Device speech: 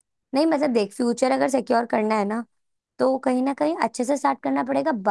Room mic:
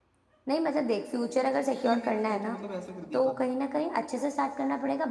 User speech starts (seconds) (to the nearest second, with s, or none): 2 s